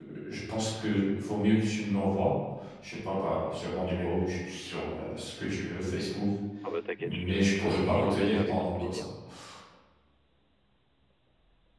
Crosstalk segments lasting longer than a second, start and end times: 7.0-9.1

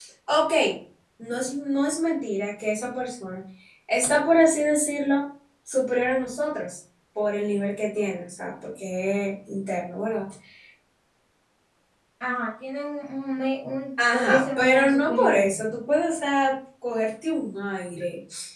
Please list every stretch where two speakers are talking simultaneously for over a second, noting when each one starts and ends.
14.1-15.6

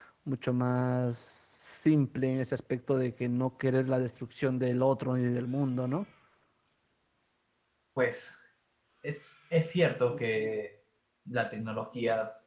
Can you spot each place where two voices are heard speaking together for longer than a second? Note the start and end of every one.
none

